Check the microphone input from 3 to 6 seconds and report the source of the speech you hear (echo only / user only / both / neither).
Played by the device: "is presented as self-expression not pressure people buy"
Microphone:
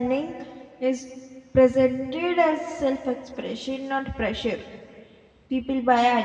echo only